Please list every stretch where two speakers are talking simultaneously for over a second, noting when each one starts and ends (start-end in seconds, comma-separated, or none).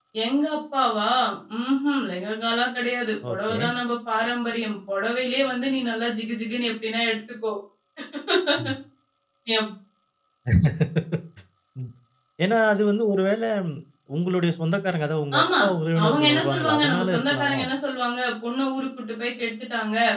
16.0-17.6